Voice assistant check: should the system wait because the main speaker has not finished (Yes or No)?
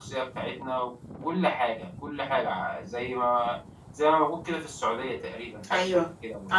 No